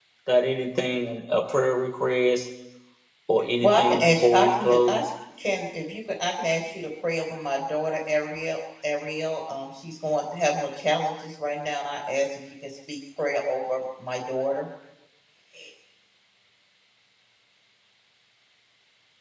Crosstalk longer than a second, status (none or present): present